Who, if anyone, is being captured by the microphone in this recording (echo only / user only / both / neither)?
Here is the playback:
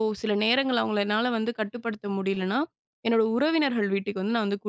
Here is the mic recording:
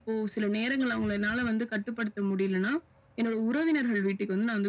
echo only